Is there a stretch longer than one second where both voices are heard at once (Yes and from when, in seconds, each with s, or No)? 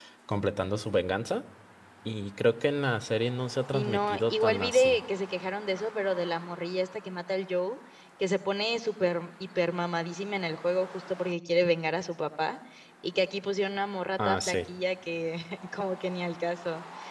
Yes, from 3.7 s